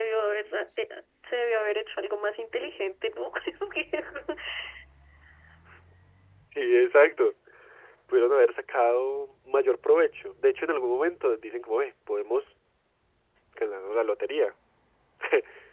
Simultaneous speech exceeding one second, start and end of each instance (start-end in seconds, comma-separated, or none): none